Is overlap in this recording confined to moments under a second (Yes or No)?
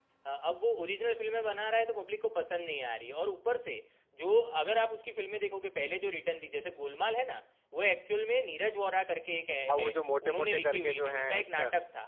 No